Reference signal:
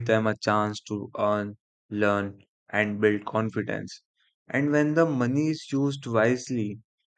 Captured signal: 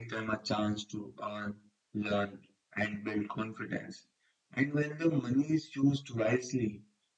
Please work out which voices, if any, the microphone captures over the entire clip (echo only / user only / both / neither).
echo only